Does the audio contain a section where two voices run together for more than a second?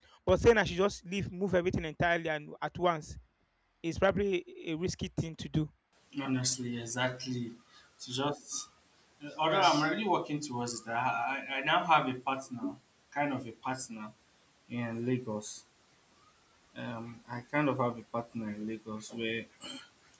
No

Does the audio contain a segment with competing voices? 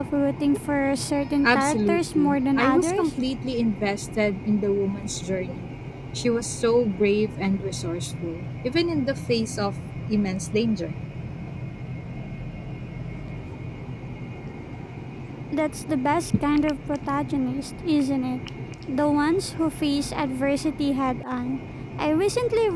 Yes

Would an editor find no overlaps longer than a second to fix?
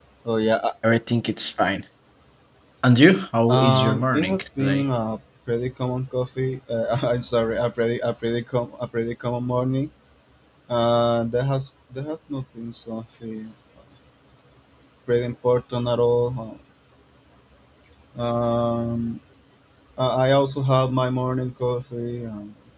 No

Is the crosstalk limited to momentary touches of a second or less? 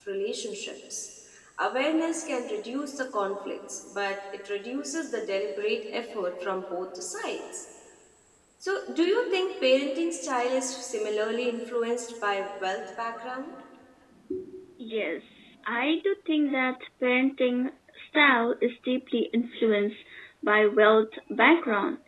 Yes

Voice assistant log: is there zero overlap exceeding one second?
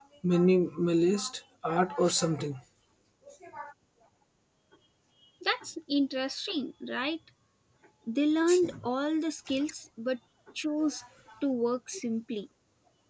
Yes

